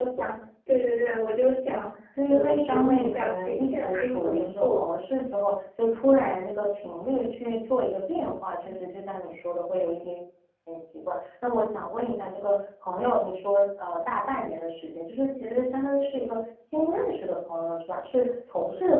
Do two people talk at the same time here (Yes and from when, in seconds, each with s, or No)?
Yes, from 2.3 s